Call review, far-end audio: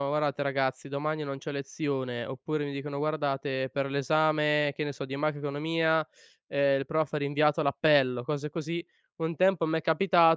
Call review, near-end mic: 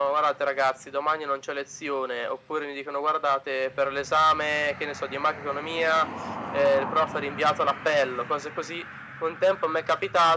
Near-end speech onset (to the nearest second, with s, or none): none